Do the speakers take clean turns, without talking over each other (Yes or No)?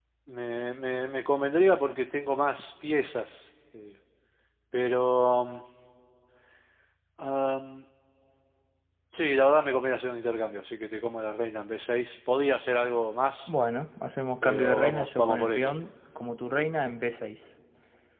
No